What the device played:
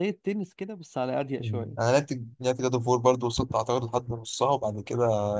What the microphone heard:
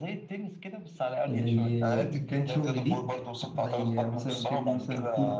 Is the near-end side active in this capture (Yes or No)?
Yes